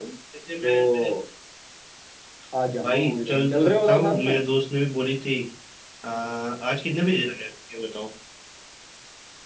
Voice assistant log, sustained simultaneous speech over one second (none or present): present